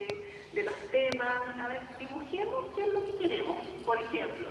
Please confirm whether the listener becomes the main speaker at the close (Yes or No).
Yes